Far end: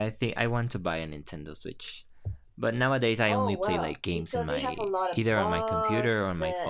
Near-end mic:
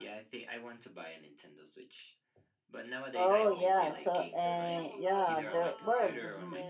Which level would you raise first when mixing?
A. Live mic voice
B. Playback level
B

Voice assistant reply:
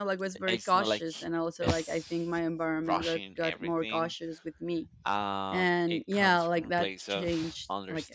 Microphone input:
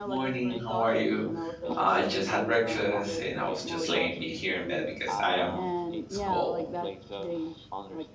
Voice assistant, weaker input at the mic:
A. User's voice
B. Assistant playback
B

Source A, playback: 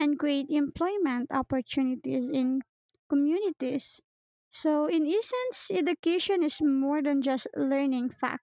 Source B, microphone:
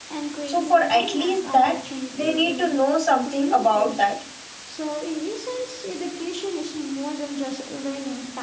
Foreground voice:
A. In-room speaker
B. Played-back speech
A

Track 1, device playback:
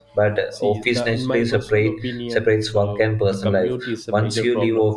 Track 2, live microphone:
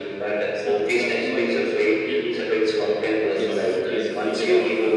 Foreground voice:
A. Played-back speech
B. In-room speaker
A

